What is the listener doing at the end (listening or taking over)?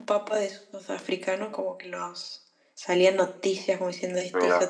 taking over